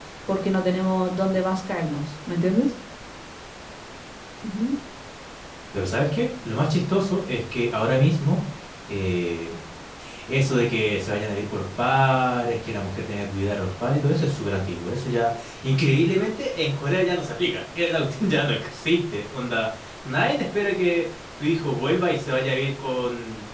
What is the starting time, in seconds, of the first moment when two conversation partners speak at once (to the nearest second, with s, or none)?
none